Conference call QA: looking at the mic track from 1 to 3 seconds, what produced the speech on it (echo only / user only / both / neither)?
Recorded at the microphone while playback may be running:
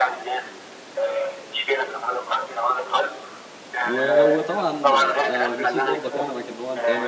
echo only